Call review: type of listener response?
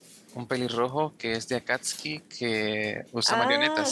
taking over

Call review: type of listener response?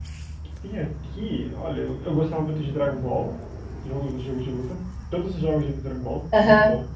taking over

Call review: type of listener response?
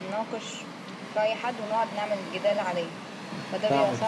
taking over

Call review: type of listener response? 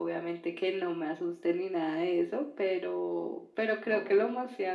listening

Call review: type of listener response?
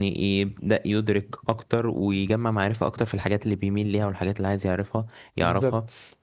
listening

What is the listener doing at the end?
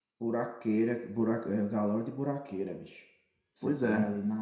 listening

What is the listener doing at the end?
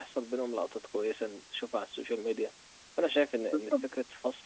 listening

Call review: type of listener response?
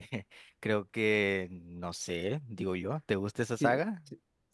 taking over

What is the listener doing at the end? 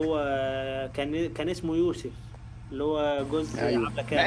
taking over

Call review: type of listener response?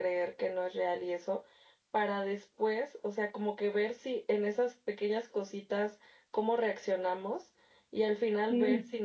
listening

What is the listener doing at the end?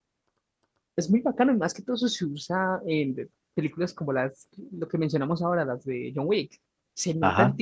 taking over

